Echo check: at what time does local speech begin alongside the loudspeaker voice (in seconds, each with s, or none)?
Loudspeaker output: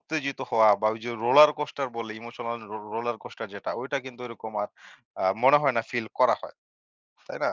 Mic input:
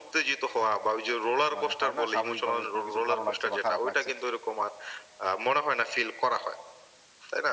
1.6 s